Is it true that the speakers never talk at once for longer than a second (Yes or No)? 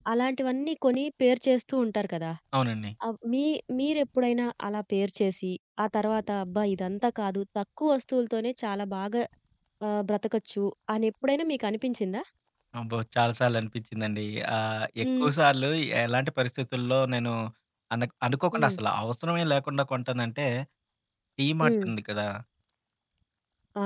Yes